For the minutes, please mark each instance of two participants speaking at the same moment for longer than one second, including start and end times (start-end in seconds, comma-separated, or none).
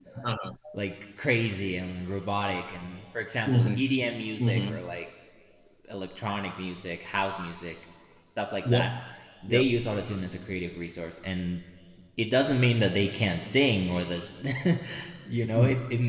none